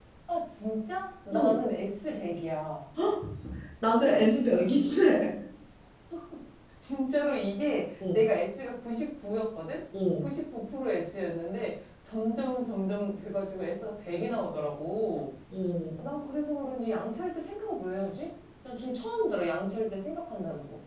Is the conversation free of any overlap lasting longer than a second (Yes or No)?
Yes